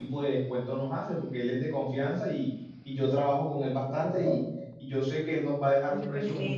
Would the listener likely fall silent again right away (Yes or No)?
Yes